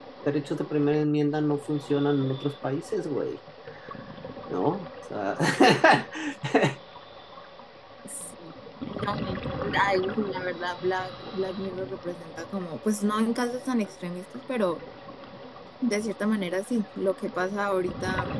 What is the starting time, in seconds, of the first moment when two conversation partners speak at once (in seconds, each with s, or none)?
none